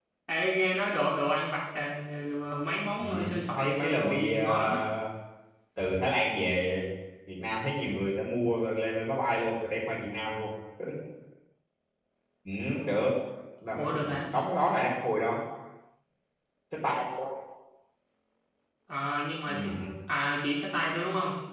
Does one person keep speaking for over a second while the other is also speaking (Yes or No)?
Yes